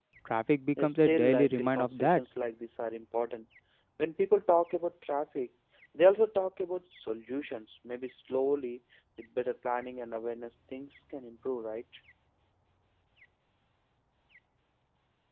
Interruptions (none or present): present